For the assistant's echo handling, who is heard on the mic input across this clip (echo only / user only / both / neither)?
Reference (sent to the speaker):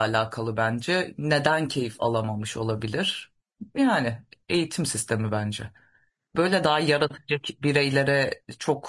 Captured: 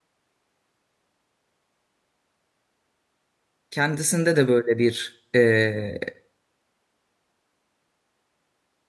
user only